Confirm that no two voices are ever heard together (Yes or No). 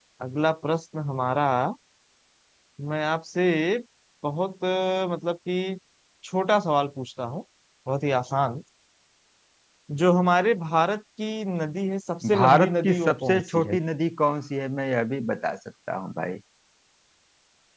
No